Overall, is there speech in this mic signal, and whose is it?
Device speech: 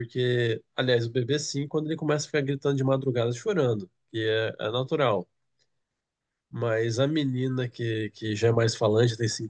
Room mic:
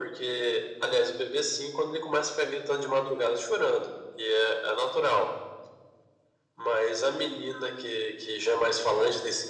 echo only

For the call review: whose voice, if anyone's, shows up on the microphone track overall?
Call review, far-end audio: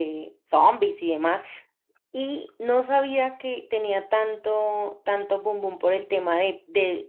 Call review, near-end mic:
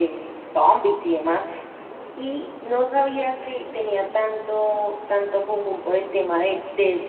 echo only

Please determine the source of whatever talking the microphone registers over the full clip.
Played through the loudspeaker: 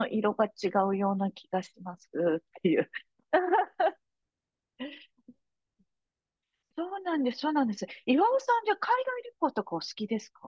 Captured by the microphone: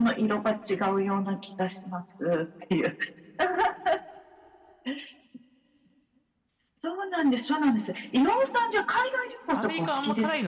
both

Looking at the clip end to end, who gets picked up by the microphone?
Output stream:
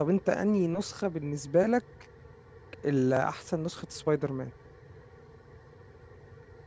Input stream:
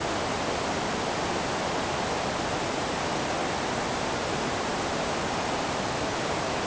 neither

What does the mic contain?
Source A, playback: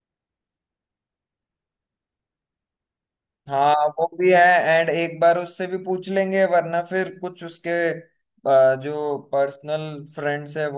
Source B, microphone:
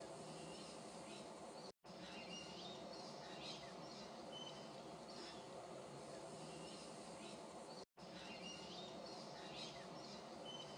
neither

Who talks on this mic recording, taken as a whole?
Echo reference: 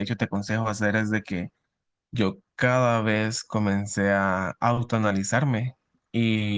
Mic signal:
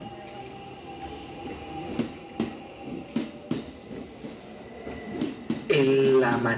user only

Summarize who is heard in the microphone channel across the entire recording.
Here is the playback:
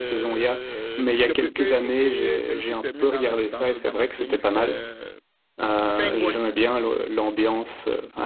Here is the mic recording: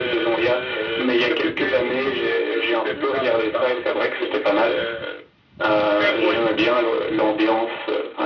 echo only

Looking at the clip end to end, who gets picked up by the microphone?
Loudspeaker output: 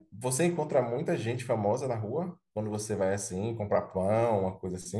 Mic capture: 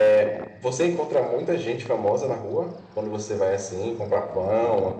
echo only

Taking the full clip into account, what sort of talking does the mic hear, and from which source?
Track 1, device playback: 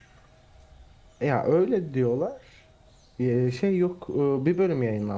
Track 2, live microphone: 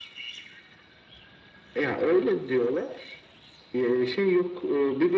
echo only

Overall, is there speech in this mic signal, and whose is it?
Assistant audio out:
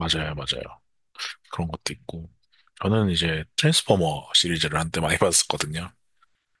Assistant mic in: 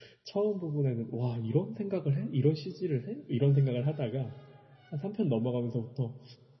user only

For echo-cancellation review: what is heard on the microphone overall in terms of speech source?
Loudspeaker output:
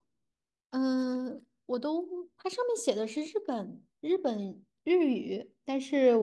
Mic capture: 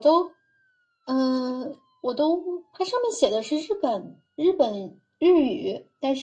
echo only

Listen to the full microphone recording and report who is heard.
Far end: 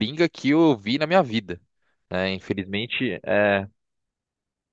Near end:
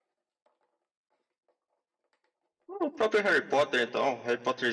user only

